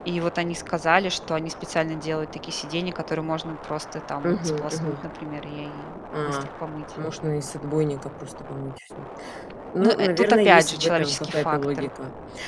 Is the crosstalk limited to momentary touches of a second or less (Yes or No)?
No